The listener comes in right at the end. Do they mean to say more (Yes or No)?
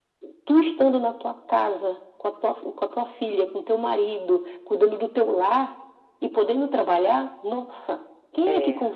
No